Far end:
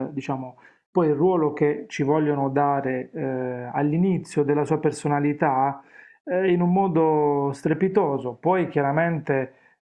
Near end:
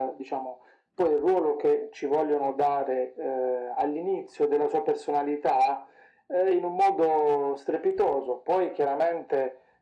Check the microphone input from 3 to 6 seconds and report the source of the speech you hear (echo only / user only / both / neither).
echo only